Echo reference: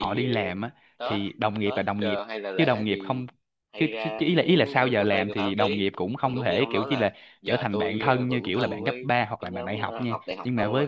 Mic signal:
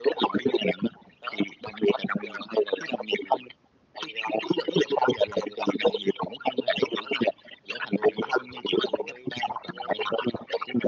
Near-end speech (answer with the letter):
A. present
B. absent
B